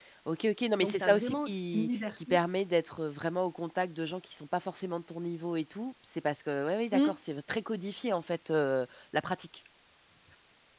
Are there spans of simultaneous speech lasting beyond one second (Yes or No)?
Yes